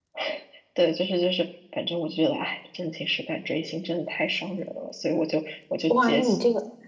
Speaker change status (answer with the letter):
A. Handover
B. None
A